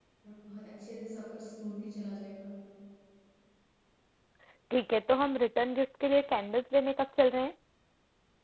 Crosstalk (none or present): none